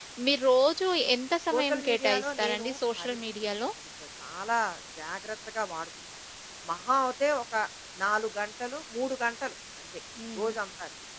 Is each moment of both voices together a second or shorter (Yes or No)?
No